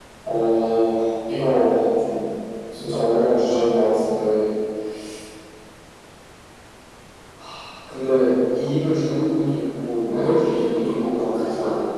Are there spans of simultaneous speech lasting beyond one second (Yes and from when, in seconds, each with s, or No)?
Yes, from 10.0 s